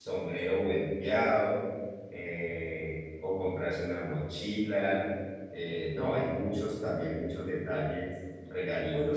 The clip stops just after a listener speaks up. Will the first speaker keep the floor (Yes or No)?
No